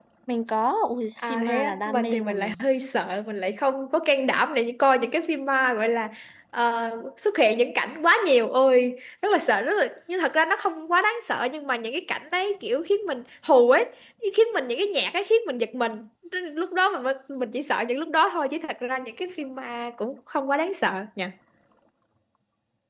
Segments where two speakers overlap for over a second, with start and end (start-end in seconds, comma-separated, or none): 1.2-2.6